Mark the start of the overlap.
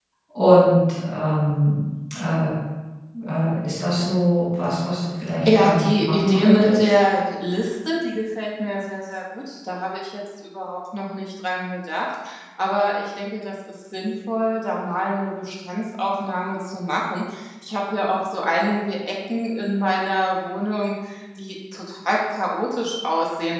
5.5 s

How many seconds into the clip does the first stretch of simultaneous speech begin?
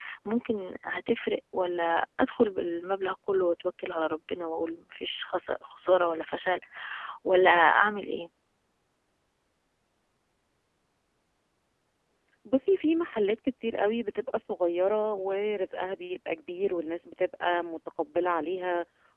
none

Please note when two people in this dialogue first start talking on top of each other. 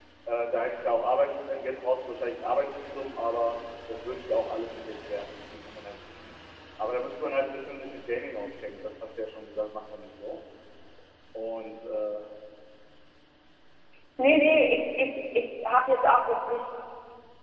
none

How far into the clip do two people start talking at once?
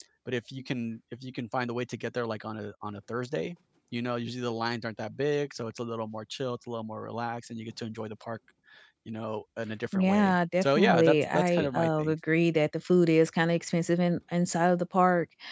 9.9 s

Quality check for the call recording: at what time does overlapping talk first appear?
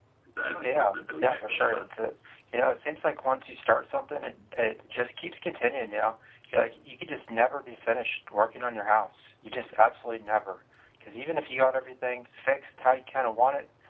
0.5 s

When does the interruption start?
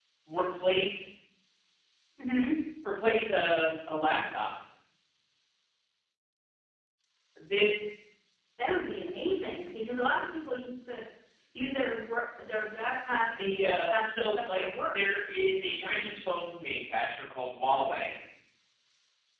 13.3 s

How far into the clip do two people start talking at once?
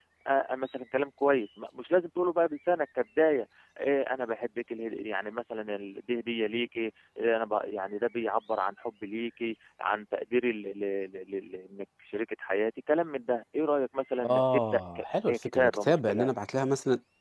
14.2 s

